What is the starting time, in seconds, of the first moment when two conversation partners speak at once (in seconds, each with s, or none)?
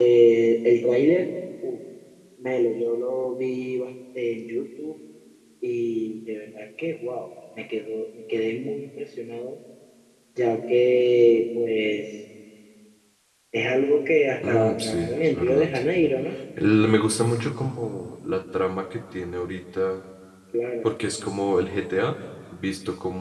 14.4 s